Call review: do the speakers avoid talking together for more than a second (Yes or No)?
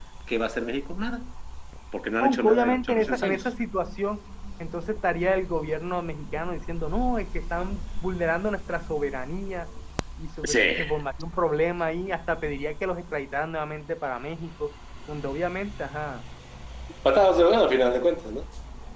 No